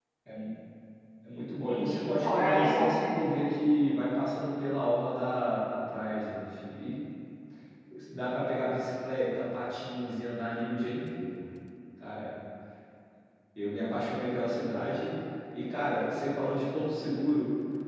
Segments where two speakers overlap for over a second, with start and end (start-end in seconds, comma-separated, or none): 1.6-3.0